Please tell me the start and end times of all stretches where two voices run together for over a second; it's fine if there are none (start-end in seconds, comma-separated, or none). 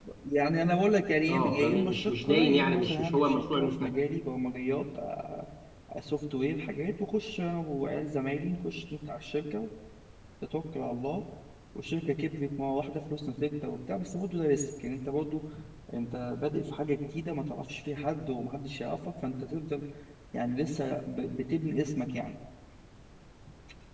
1.3-3.9